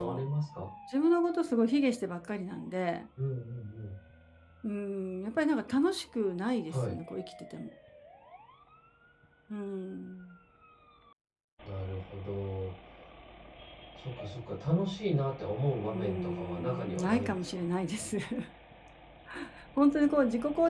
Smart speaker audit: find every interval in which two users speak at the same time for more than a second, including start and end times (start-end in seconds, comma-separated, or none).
15.9-17.7